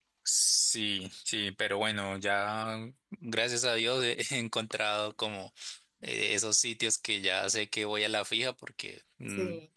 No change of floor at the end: Yes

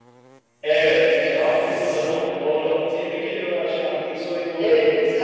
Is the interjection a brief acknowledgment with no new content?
No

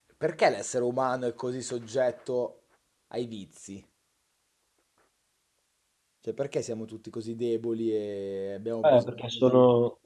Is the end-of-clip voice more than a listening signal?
Yes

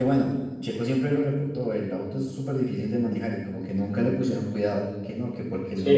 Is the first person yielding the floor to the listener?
Yes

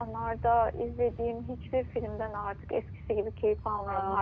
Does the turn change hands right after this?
Yes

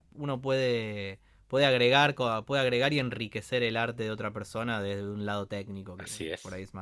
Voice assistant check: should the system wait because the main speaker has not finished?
No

